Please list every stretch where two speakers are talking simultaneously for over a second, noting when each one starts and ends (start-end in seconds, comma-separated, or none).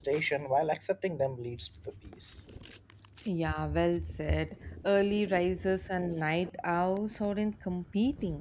none